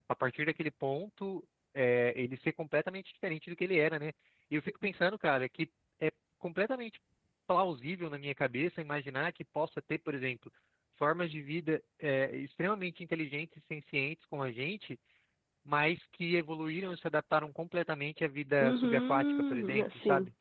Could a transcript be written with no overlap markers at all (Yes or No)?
No